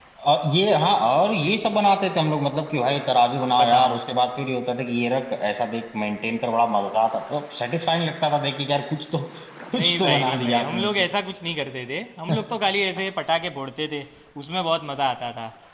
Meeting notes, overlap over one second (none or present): present